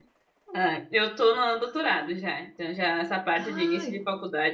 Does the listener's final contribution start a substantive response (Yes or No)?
No